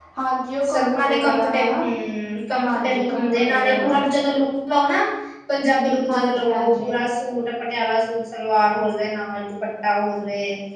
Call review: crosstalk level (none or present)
present